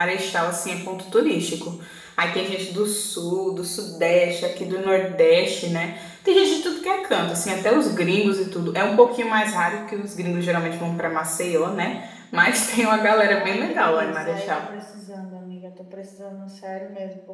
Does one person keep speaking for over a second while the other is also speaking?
Yes, from 13.2 s

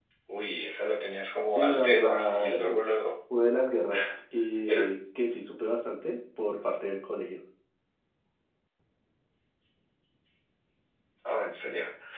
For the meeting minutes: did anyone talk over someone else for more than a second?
Yes, from 1.6 s

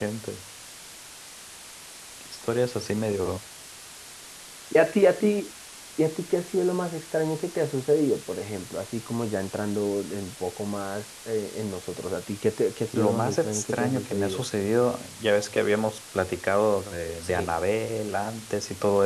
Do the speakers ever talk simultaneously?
Yes, from 12.9 s

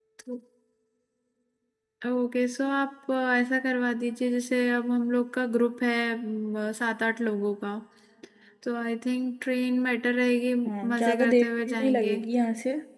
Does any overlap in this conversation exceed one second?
Yes, from 10.9 s

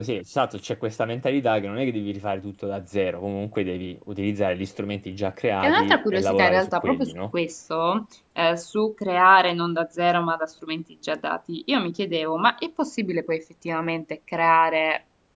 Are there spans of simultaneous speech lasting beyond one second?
Yes, from 5.6 s

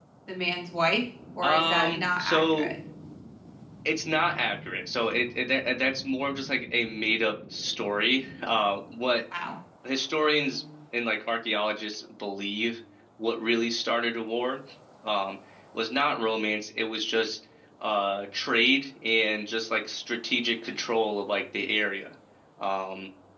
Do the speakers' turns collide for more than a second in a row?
Yes, from 1.4 s

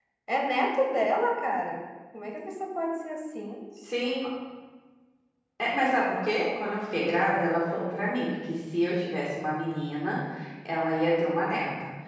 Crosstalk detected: No

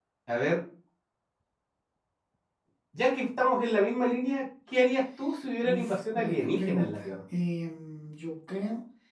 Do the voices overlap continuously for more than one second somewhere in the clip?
Yes, from 5.6 s

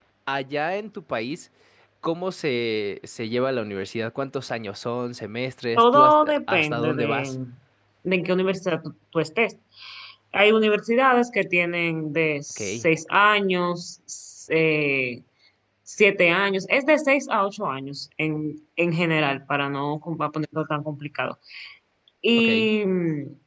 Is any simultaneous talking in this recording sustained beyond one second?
Yes, from 5.8 s

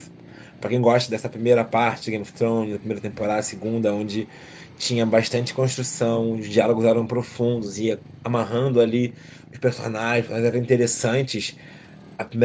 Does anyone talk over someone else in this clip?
No

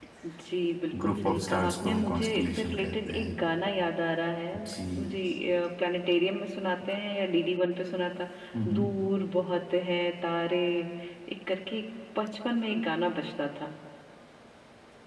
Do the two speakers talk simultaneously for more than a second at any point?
Yes, from 1.0 s

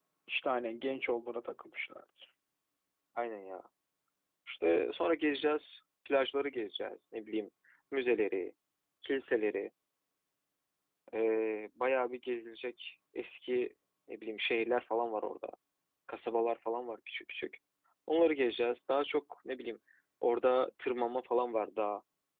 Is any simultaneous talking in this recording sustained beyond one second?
No

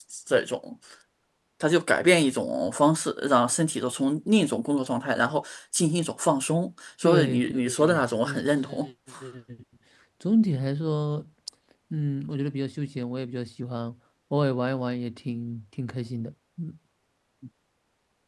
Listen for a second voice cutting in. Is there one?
Yes, from 7.0 s

